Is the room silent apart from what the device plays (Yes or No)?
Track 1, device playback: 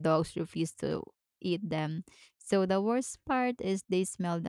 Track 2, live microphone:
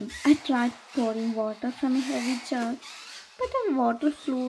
No